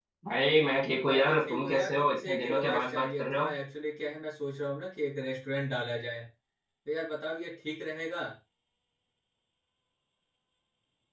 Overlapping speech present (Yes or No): Yes